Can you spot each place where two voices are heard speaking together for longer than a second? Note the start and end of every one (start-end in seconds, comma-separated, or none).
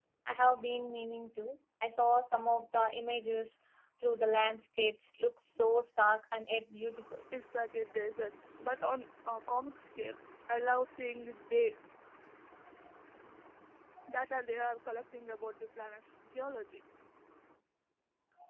none